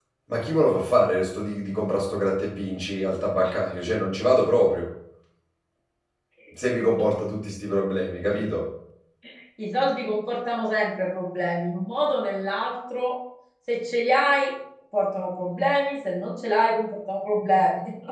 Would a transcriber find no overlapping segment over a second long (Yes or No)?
Yes